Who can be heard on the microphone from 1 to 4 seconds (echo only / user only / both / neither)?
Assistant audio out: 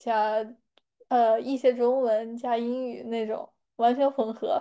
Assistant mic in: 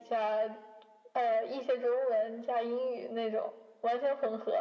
echo only